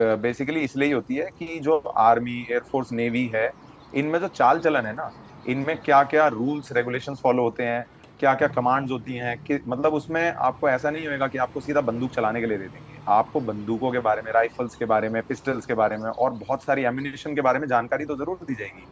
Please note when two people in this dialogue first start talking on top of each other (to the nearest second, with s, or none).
none